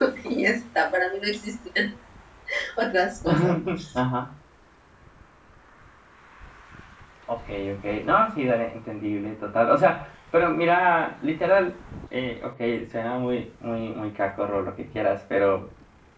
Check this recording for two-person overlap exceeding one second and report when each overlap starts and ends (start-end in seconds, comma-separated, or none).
none